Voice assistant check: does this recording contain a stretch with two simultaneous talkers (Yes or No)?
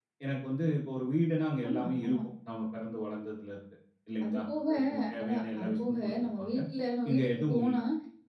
Yes